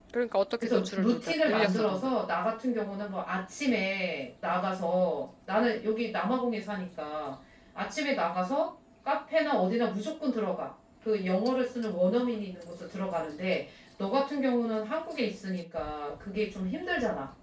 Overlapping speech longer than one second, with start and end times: 0.6-2.1

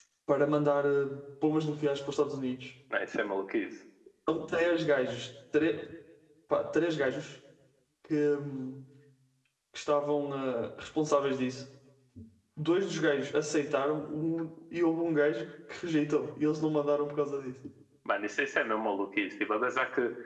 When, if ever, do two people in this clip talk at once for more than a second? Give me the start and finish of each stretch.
none

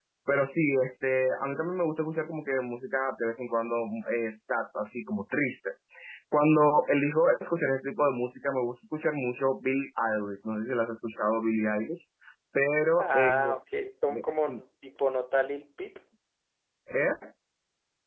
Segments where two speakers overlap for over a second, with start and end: none

